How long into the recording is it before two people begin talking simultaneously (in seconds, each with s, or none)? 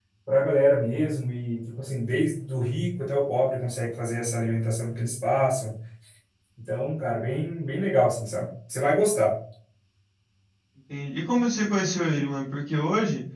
none